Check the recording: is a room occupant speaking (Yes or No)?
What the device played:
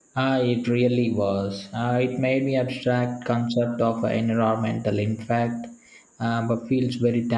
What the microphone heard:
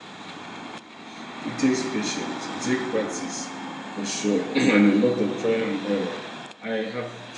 Yes